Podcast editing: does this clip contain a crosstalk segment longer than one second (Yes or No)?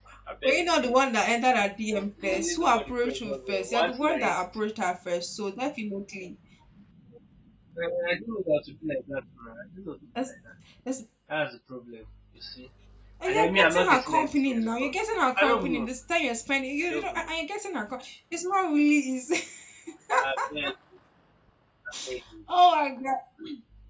Yes